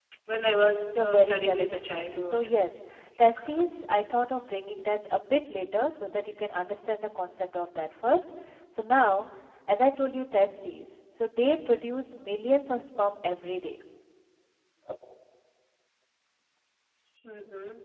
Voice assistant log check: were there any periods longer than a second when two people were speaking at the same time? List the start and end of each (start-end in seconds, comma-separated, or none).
1.0-2.4